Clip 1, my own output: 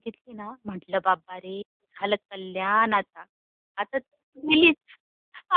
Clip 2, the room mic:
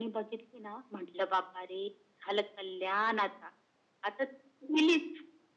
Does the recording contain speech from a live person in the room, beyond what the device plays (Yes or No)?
No